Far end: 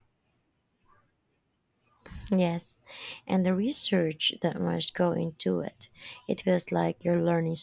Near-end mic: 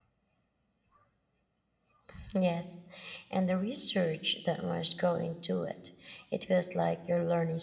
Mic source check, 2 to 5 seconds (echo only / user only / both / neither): echo only